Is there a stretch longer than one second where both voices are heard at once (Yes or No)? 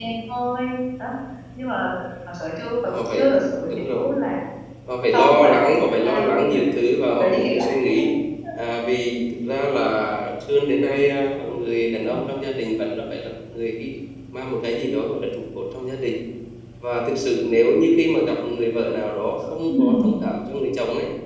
Yes